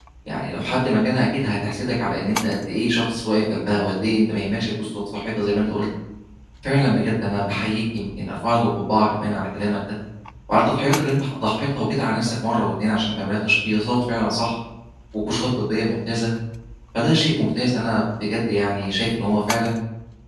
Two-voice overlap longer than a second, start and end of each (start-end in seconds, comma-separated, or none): none